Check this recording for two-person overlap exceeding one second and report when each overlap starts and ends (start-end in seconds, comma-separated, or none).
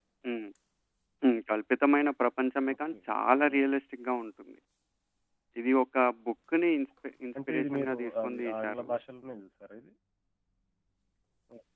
7.5-8.9